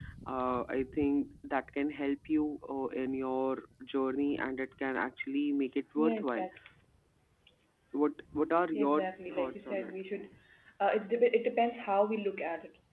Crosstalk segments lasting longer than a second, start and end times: 8.7-9.9

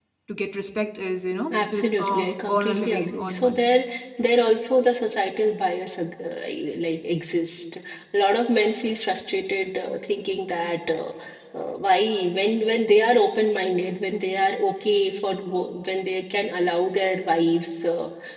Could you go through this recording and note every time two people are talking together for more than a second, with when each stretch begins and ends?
1.5-3.7

